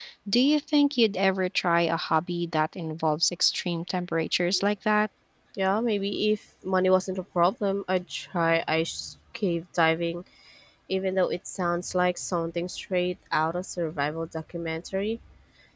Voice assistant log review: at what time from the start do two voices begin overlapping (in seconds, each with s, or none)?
none